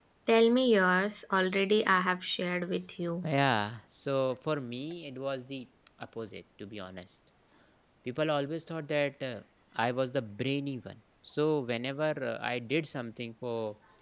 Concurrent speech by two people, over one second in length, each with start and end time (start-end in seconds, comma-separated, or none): none